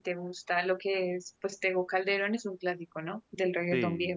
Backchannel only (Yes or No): No